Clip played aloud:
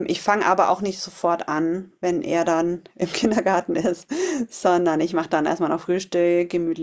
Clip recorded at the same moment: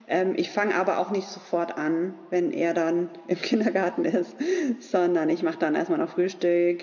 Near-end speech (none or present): none